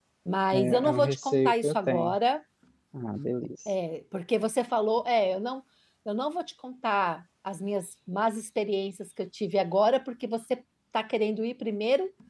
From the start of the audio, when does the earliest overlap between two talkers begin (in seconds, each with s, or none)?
0.5 s